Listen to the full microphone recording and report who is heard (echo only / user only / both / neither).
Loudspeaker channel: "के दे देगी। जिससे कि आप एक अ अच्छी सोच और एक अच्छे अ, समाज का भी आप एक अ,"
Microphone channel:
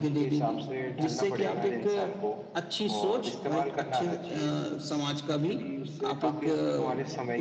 both